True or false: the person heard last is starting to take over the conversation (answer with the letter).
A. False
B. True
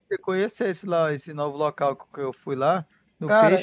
B